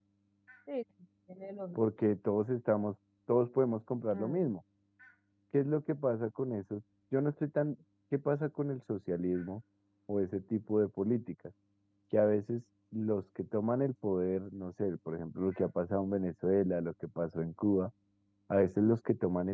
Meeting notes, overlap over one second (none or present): none